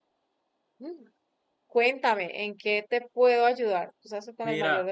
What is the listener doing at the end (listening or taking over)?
taking over